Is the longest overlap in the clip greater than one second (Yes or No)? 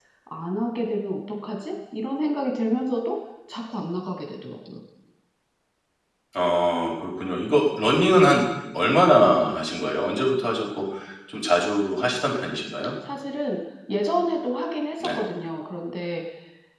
No